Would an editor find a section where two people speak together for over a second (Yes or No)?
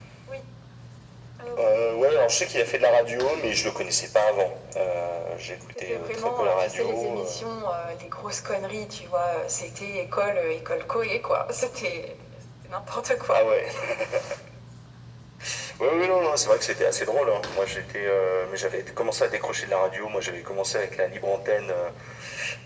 Yes